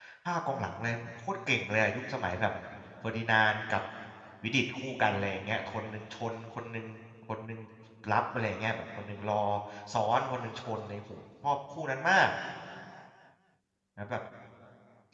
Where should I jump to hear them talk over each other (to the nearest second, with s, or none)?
none